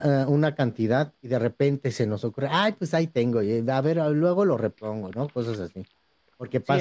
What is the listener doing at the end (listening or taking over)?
taking over